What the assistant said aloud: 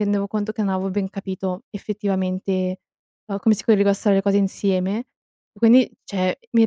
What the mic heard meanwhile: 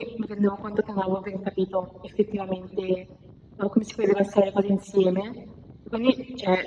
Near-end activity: none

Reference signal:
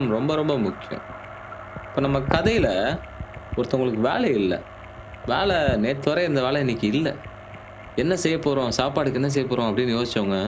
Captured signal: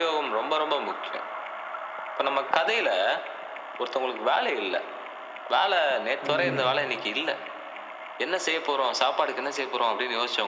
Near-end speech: present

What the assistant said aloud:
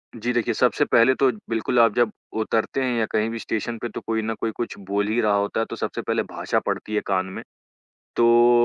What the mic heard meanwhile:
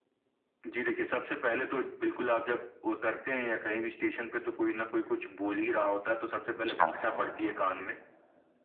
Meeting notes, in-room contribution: present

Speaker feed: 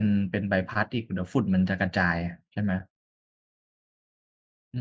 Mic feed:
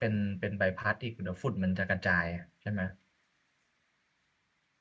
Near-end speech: none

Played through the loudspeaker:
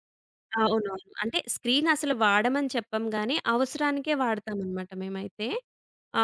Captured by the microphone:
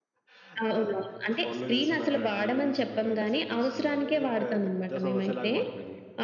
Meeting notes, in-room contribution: present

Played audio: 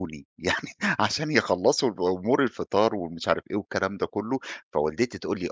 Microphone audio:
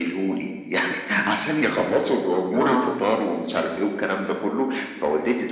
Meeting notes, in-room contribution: present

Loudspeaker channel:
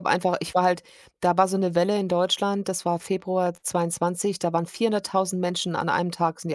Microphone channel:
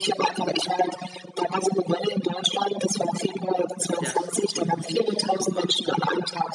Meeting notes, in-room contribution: present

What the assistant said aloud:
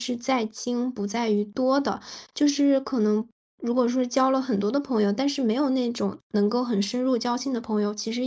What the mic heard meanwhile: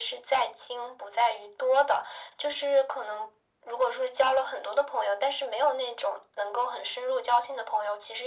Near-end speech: none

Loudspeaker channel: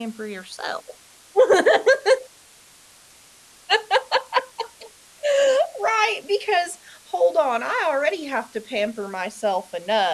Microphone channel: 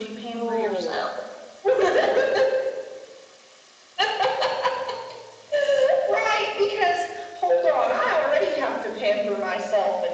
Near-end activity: present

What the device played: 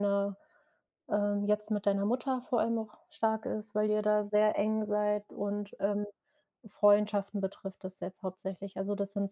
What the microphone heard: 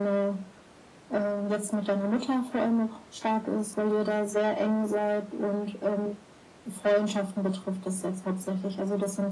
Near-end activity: none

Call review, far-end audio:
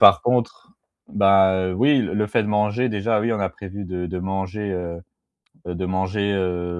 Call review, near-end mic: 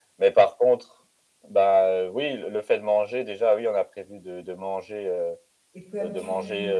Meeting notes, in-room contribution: present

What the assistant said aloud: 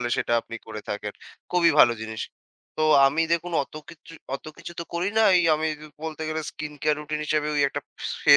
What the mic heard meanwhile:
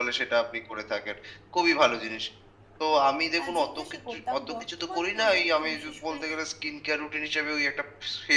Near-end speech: present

